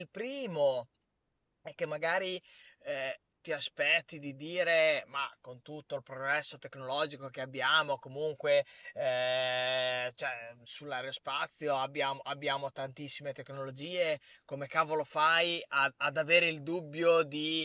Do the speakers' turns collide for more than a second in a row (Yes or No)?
No